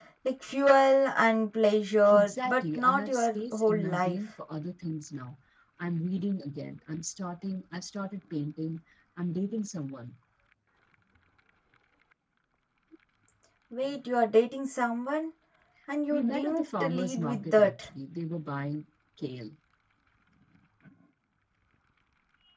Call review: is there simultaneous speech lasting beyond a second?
Yes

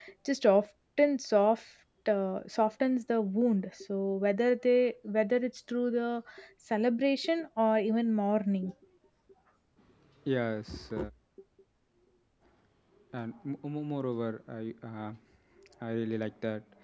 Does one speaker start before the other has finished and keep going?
No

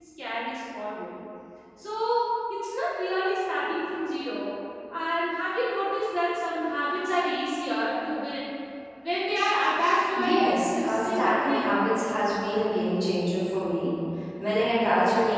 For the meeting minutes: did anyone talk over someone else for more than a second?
Yes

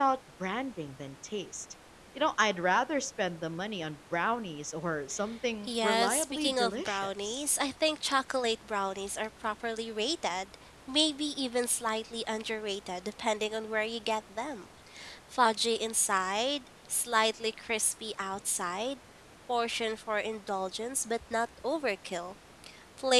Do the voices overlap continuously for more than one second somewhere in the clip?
Yes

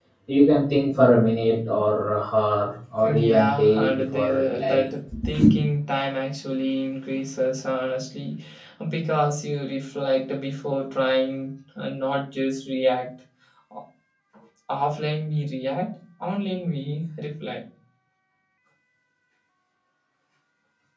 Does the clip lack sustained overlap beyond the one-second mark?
No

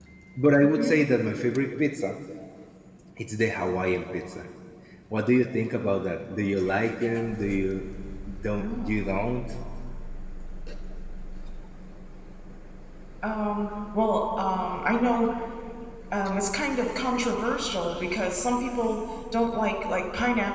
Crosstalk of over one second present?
No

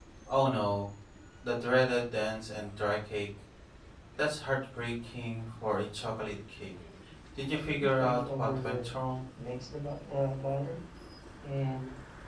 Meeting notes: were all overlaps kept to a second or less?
No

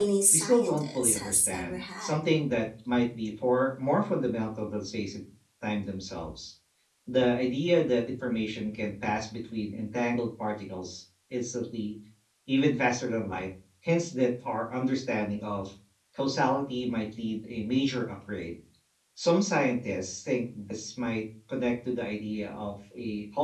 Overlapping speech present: Yes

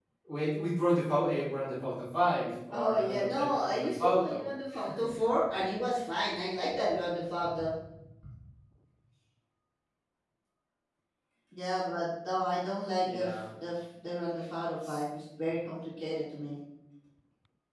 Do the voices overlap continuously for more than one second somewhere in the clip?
Yes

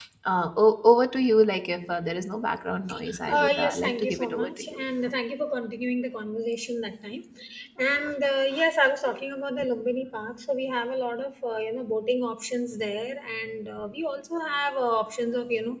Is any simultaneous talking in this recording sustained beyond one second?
Yes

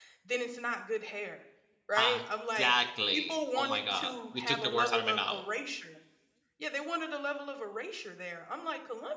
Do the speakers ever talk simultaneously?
Yes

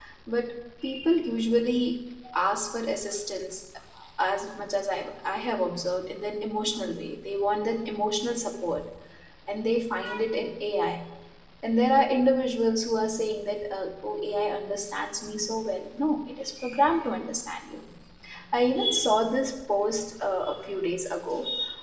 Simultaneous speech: No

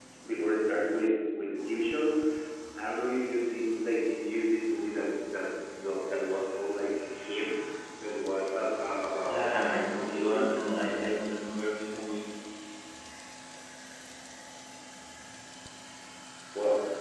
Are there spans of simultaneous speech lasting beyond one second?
Yes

